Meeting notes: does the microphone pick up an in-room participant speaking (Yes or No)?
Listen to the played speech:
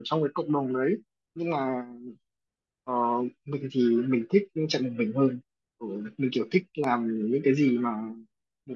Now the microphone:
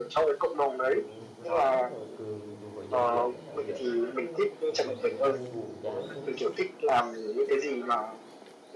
Yes